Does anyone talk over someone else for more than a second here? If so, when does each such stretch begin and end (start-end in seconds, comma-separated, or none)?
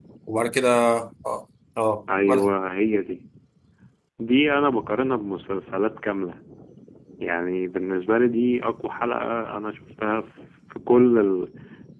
none